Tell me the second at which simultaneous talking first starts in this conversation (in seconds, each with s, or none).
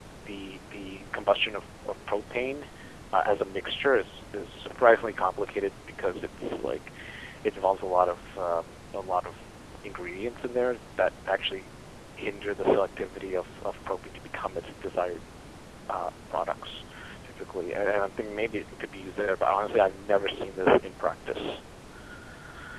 none